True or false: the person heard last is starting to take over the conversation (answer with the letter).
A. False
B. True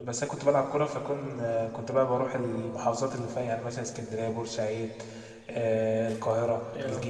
A